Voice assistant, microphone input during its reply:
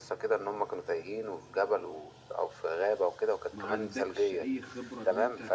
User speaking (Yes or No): Yes